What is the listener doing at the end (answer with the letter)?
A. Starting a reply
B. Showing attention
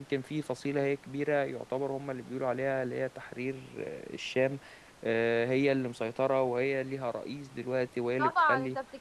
A